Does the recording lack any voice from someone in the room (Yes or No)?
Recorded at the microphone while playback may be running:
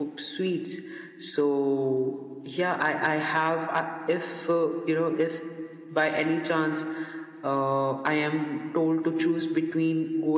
No